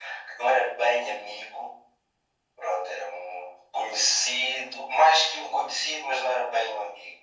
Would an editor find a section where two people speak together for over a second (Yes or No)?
No